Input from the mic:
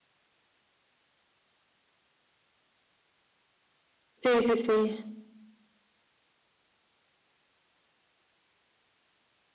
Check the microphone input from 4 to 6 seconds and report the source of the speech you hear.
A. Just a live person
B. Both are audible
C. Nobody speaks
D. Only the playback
A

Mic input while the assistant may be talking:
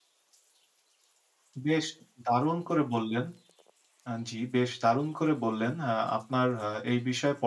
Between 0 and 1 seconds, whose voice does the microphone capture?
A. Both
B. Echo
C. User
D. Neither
D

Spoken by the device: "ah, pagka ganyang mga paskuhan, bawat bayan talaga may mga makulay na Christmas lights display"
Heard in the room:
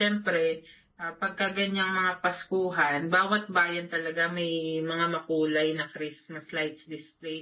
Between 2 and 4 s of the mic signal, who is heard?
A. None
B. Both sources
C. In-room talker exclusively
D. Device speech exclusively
D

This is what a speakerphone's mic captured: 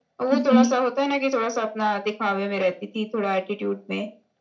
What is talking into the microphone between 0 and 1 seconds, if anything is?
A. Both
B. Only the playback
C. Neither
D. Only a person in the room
A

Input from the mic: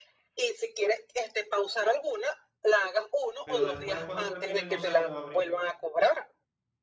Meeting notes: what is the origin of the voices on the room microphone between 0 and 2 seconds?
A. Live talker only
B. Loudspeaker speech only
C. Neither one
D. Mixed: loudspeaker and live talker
B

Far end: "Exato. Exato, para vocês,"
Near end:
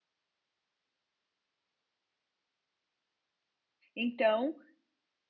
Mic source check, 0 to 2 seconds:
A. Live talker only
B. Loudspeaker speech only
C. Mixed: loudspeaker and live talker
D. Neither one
D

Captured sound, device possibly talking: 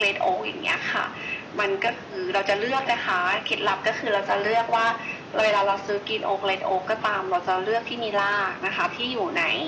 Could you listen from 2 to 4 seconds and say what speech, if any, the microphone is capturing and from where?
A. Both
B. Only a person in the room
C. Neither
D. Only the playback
D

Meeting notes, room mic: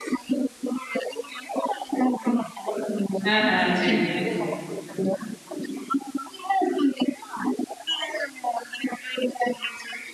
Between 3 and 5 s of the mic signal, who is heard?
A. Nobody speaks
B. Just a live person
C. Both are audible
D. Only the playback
C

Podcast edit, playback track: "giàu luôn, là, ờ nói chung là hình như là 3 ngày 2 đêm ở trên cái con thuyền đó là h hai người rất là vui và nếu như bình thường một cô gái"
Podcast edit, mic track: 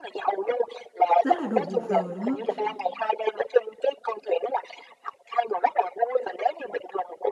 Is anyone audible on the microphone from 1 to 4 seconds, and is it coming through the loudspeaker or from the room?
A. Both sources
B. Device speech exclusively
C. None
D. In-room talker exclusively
A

